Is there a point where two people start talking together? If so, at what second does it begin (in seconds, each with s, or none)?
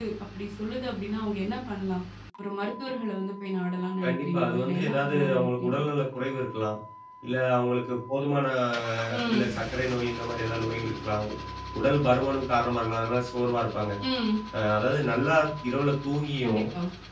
4.0 s